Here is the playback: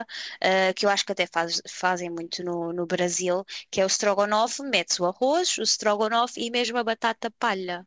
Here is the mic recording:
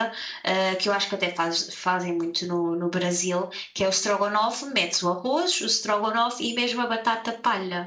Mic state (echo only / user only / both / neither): echo only